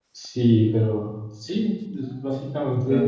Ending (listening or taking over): listening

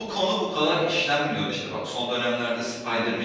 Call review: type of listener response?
listening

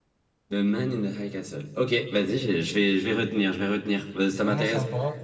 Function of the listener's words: taking over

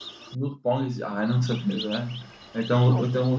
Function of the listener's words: listening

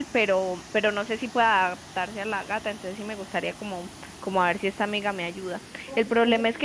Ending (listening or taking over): listening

